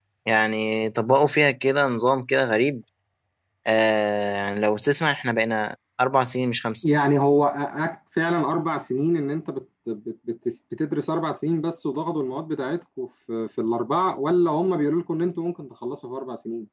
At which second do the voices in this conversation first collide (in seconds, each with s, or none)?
none